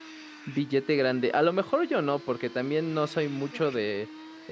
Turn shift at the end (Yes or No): No